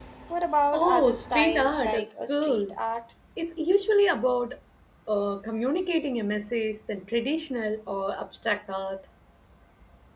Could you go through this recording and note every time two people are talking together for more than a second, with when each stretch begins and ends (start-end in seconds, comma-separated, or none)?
0.7-2.7